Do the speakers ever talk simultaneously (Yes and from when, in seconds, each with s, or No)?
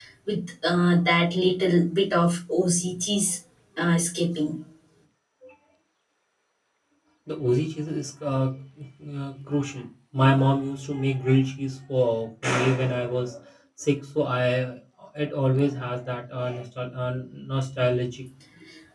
No